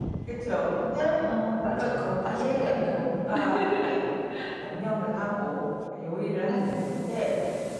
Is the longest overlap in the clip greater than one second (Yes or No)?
Yes